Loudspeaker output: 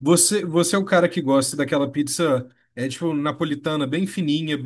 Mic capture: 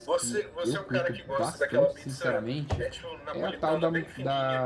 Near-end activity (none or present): present